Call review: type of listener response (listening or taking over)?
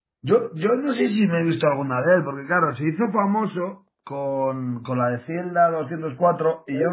taking over